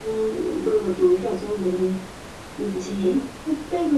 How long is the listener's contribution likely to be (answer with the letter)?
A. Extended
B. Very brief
B